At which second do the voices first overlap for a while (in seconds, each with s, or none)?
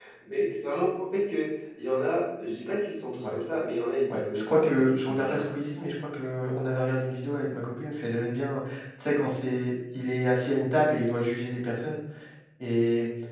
4.1 s